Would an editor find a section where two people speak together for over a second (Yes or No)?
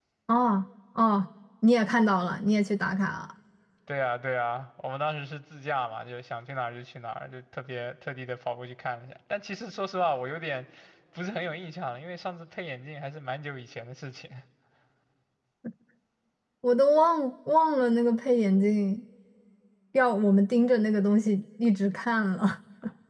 No